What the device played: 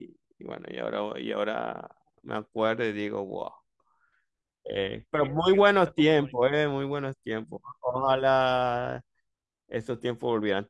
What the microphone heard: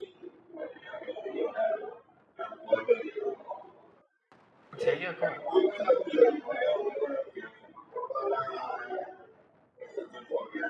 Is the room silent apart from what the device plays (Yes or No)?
No